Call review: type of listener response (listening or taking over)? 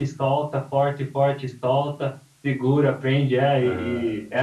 listening